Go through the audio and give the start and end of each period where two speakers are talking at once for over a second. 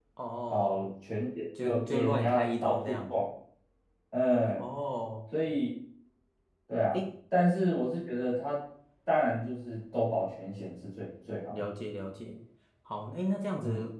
1.6-3.1

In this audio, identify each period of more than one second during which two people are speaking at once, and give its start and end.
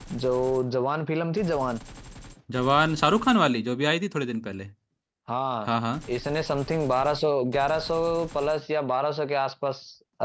none

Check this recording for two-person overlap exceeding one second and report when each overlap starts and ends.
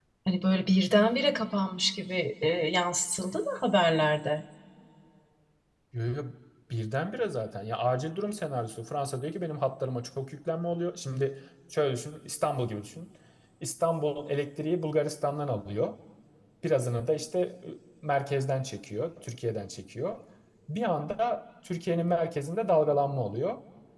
none

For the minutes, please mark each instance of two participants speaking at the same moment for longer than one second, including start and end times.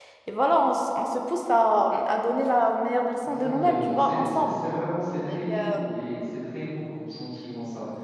3.2-4.5

